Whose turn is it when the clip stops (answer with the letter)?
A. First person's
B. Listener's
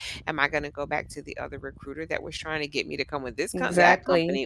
A